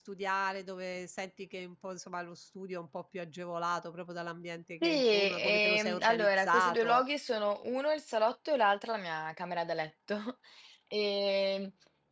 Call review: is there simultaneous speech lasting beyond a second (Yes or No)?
Yes